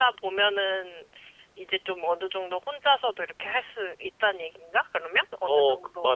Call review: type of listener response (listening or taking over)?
taking over